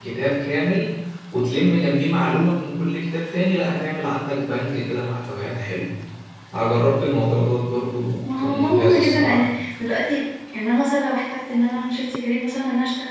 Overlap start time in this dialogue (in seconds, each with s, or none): 8.2 s